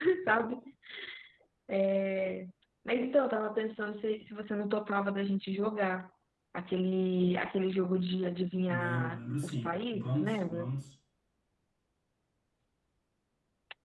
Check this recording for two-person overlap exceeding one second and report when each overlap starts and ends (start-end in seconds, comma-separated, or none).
8.7-10.7